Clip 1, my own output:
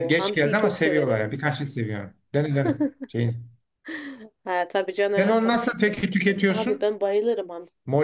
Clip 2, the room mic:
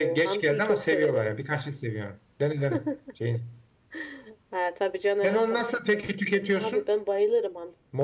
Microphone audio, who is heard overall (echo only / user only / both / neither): echo only